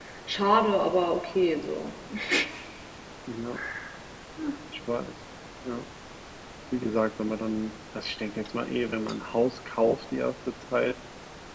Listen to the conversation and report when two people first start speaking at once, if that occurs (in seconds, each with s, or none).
none